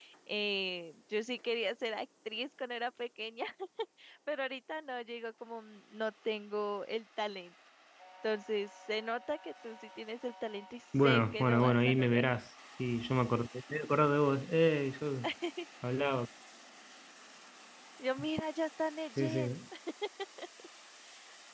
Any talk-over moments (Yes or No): Yes